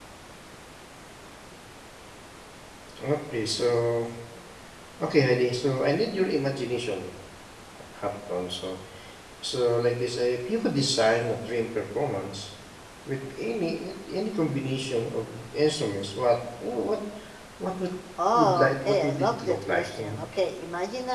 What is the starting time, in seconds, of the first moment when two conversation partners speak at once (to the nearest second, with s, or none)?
18 s